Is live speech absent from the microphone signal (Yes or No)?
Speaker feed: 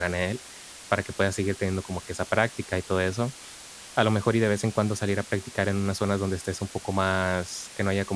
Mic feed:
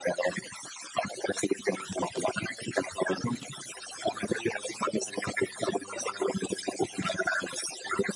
Yes